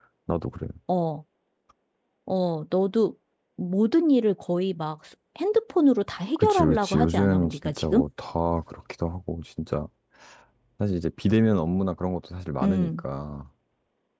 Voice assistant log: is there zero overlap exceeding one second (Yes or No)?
No